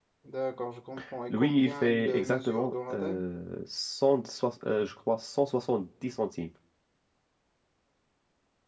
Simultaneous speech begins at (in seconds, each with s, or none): 1.3 s